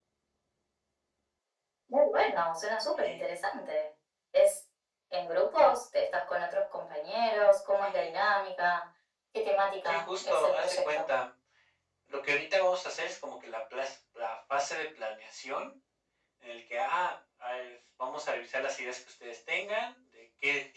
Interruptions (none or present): present